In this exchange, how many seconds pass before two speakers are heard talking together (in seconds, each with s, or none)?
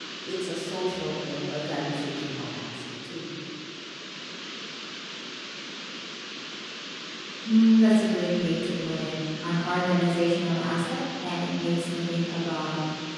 none